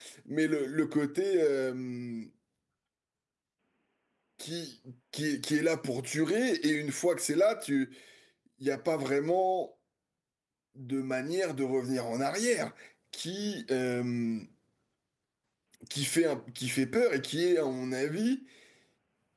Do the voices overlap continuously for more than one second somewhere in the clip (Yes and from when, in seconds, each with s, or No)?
No